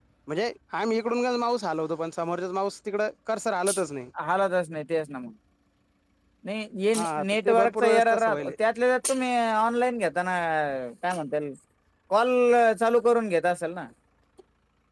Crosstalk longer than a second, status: present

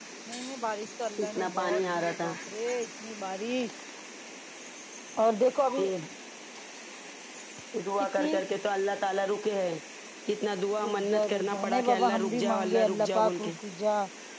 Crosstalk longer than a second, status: present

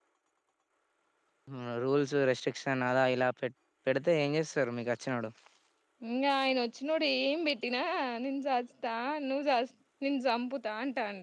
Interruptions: none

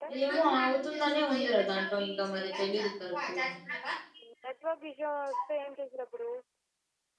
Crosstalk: none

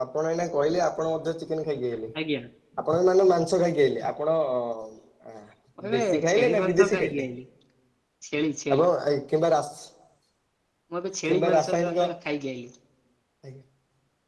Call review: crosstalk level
present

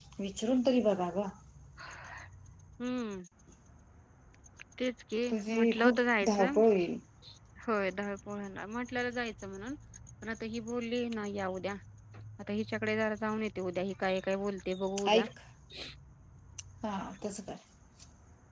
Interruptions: present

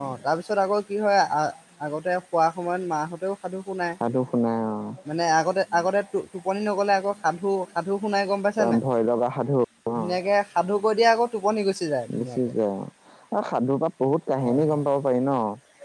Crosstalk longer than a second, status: none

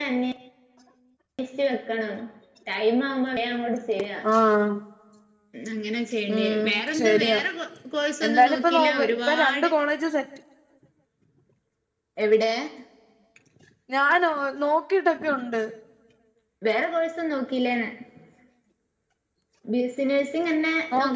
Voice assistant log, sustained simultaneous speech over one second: present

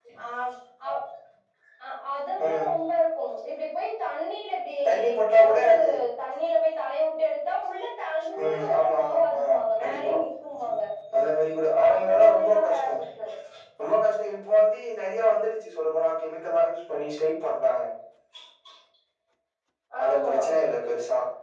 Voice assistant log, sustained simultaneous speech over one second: present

